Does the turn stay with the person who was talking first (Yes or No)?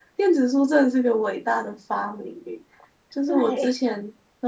Yes